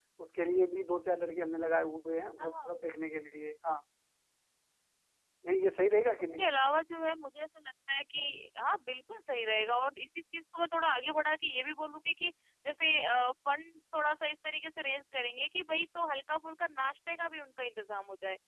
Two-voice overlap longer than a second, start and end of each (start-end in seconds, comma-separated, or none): none